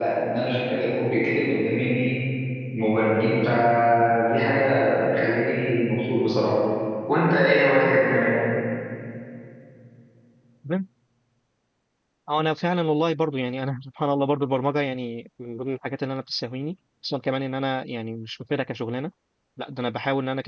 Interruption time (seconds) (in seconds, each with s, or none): none